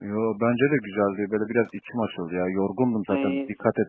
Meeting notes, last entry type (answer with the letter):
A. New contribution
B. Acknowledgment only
B